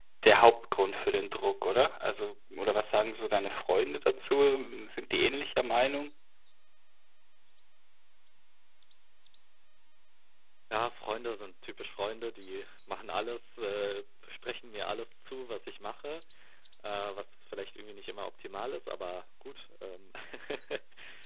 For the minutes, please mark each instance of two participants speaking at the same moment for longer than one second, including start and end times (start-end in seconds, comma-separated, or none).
none